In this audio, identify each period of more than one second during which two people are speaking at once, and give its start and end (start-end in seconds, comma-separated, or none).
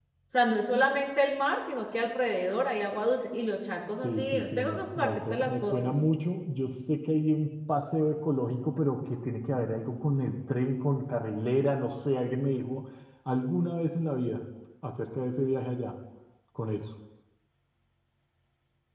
4.0-5.9